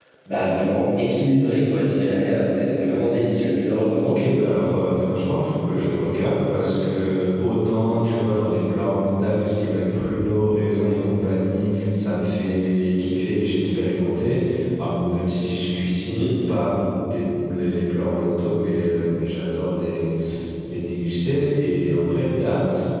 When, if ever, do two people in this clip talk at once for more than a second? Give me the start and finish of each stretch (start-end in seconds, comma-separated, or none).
none